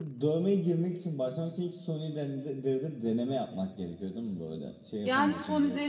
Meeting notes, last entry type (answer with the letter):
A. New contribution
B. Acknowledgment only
A